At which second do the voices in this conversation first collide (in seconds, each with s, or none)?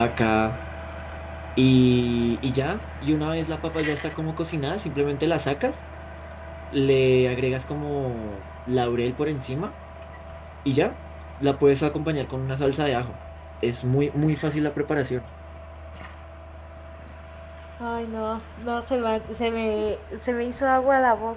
none